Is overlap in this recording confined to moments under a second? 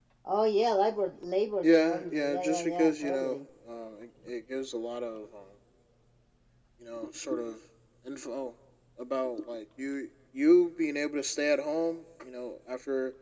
No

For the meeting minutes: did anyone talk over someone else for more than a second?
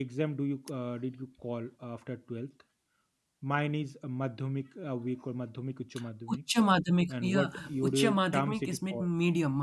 Yes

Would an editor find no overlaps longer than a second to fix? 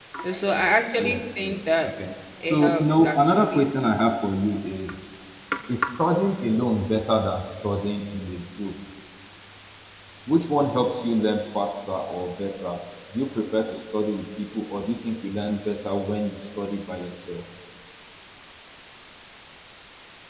No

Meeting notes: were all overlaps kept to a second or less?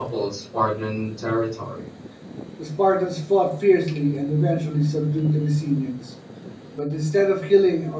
Yes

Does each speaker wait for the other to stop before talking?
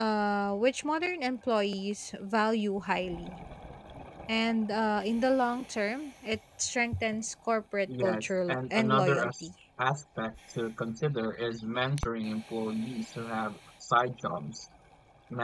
No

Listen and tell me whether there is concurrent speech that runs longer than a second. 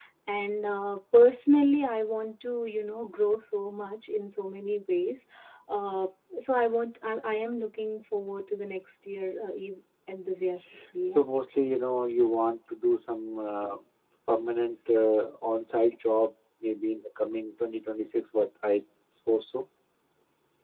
No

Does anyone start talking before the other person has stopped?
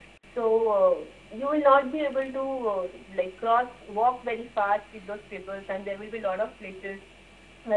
No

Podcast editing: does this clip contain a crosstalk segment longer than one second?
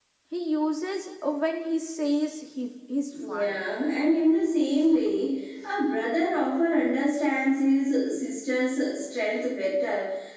No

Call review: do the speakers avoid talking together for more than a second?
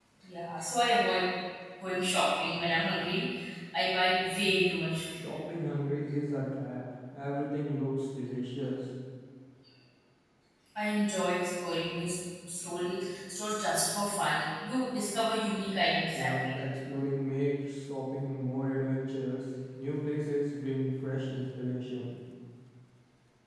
Yes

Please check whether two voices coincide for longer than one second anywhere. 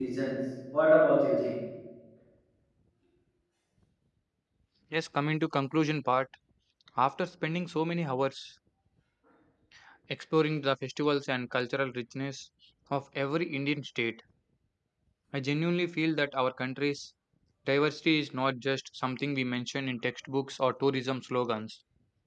No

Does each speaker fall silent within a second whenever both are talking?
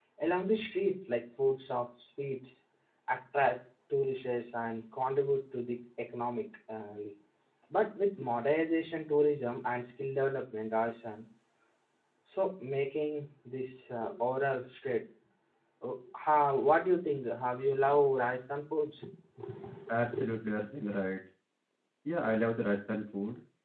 Yes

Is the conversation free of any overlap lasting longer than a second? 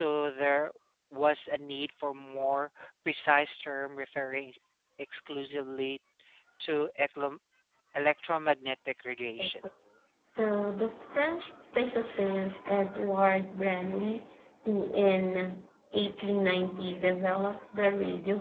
Yes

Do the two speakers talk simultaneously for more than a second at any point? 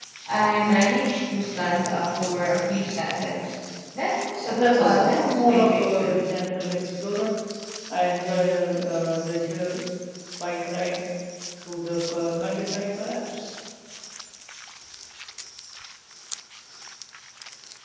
Yes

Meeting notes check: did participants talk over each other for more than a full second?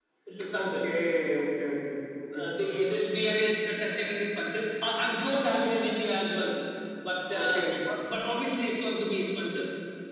No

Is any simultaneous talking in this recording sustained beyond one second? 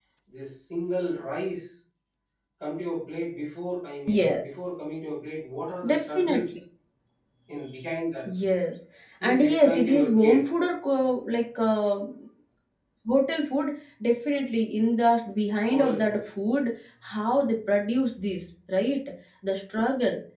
Yes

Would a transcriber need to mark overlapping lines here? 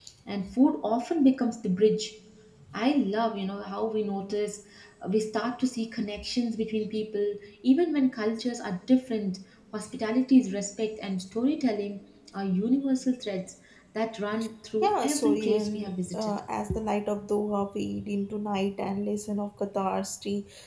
Yes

